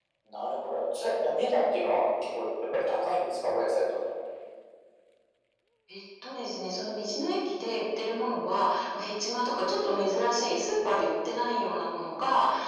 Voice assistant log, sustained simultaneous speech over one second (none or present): none